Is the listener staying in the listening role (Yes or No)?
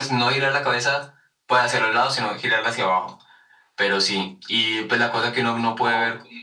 Yes